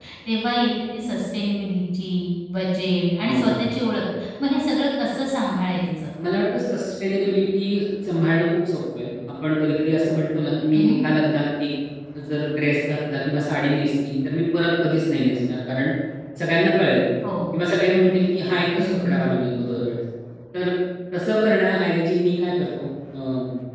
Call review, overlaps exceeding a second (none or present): none